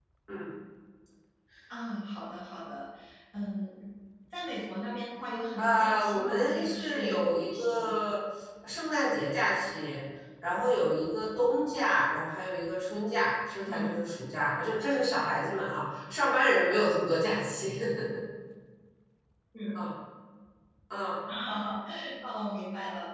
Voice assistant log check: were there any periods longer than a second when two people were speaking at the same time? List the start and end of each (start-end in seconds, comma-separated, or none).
5.6-8.0